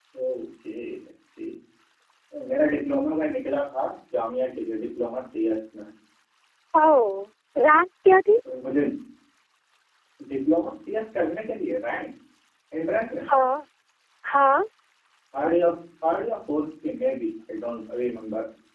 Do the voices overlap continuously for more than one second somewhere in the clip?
No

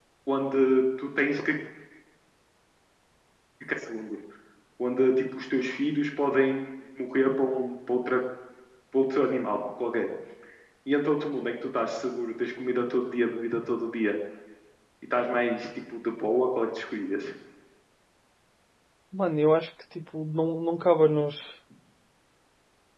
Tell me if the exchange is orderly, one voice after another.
Yes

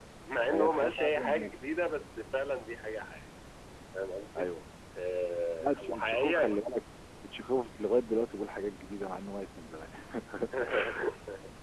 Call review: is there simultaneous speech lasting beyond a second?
Yes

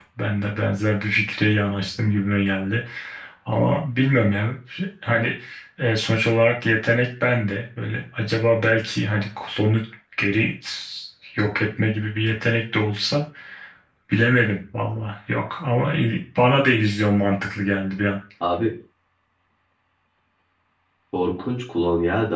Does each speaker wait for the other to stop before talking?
Yes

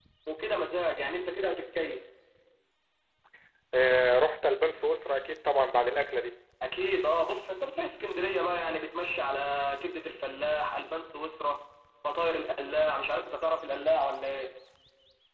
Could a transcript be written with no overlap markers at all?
Yes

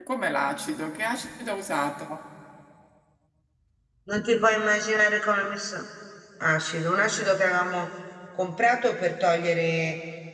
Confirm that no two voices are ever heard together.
Yes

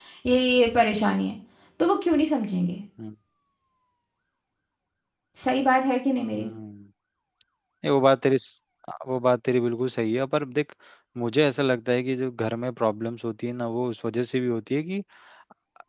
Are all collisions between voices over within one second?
Yes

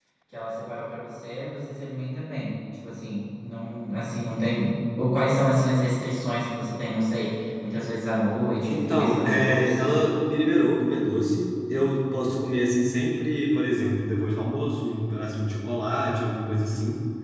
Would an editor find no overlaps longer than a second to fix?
No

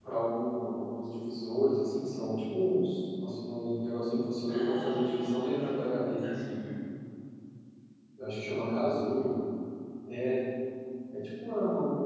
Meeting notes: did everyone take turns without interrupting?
No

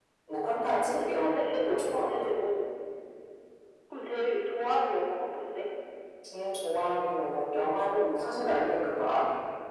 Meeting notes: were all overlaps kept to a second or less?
No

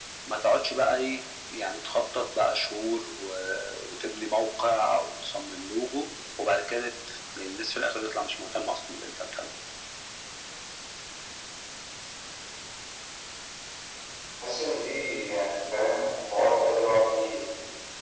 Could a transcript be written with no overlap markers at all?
Yes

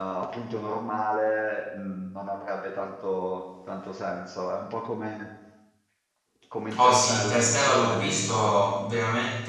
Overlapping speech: Yes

